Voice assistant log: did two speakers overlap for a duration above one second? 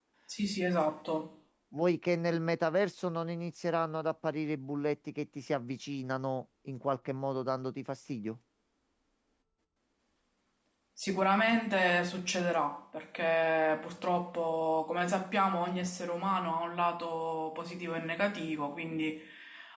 No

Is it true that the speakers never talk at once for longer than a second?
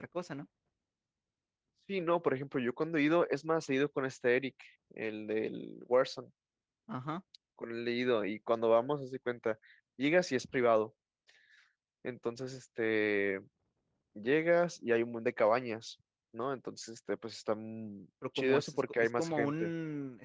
No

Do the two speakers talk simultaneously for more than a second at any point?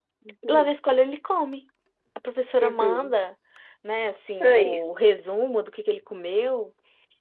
No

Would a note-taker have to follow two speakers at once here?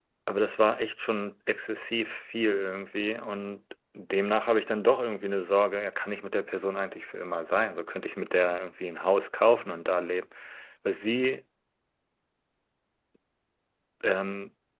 No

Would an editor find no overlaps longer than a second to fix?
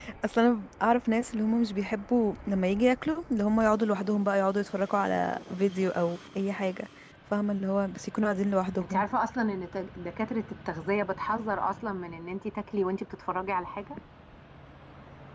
Yes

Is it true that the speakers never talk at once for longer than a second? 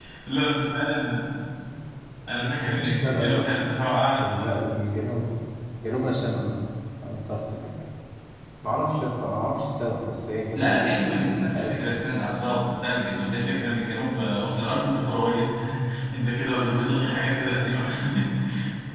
No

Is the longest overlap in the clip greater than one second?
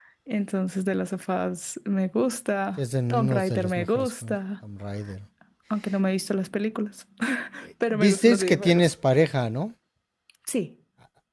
Yes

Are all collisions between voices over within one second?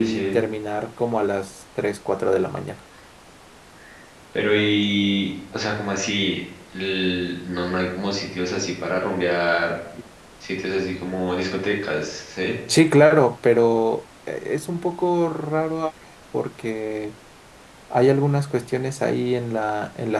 Yes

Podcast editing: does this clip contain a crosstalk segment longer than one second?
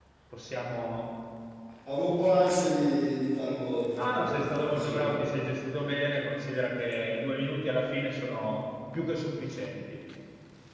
Yes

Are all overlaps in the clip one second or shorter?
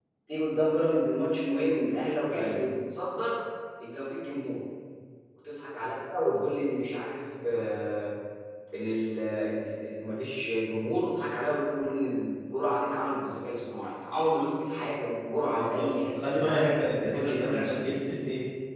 No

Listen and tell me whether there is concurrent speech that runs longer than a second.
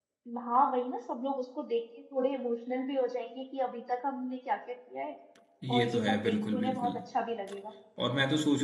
Yes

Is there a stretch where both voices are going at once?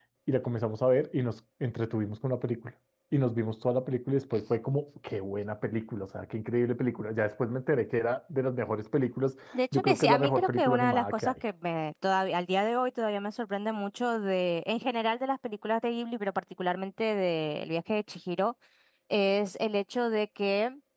Yes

